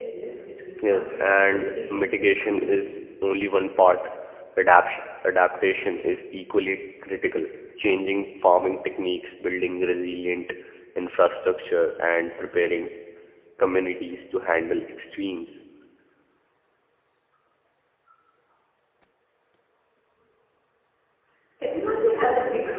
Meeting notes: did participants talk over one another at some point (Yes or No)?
Yes